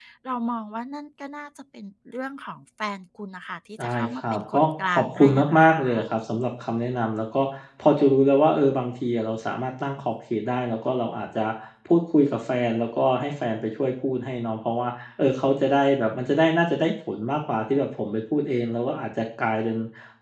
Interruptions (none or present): present